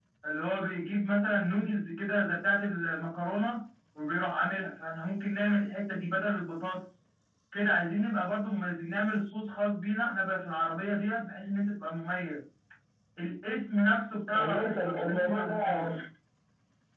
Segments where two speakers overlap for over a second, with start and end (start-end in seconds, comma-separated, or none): 14.3-15.8